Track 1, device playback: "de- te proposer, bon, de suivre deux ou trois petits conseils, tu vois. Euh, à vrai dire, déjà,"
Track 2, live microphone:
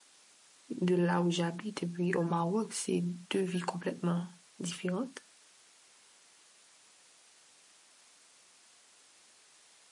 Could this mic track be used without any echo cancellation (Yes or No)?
Yes